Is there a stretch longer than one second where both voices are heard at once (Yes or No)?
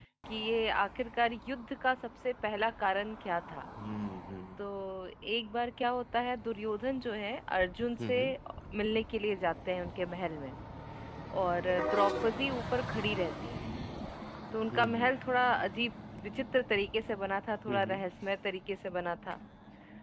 No